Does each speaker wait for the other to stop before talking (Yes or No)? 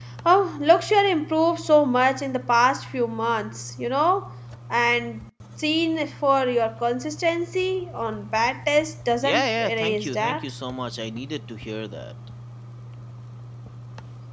No